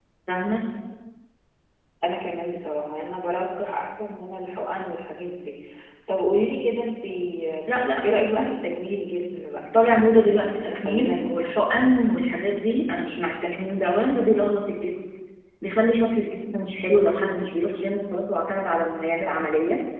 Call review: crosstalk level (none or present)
present